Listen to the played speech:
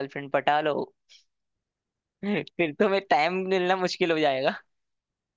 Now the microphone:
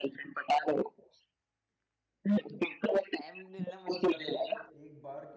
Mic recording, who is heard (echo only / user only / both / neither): both